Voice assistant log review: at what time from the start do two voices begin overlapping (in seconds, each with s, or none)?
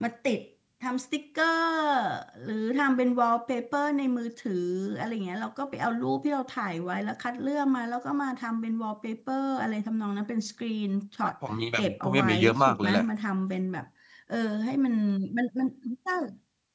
11.8 s